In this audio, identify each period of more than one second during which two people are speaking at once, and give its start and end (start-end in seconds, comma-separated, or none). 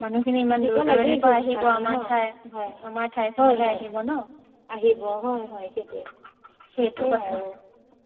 0.6-1.9